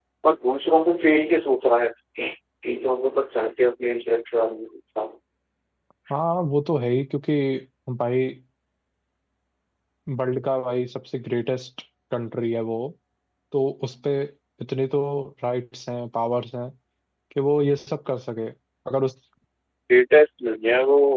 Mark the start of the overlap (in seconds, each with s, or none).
none